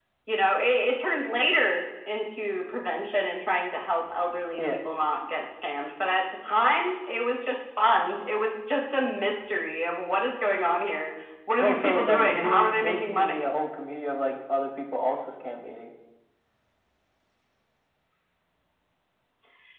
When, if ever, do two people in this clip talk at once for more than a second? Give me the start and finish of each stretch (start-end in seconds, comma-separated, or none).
11.6-13.5